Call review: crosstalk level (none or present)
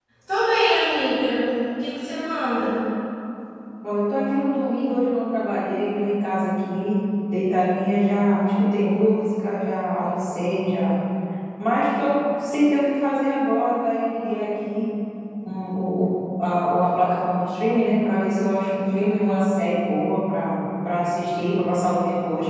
none